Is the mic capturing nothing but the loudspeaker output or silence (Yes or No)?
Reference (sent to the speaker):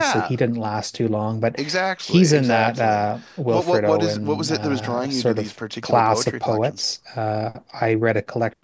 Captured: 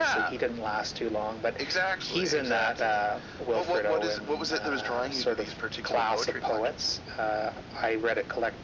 Yes